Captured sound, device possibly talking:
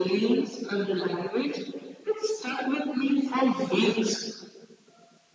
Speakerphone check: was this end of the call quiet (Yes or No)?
Yes